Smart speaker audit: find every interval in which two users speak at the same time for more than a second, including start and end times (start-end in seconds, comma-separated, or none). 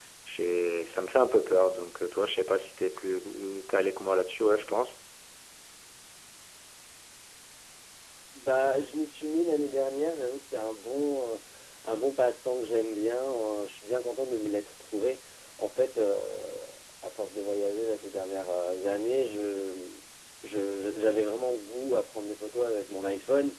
none